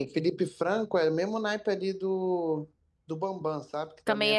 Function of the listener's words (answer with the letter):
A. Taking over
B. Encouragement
A